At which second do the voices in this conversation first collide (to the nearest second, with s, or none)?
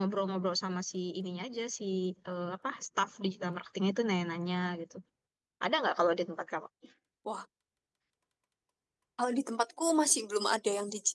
none